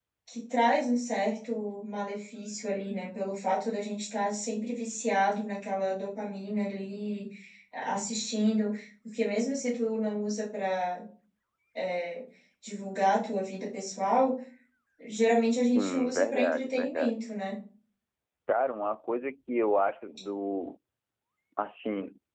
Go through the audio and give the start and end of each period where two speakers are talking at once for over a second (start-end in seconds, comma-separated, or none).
15.8-17.2